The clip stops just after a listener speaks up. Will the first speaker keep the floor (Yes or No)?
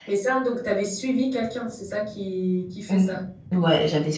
No